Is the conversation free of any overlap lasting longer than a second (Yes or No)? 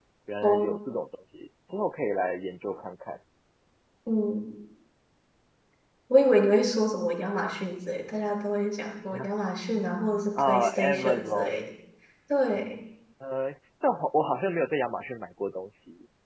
No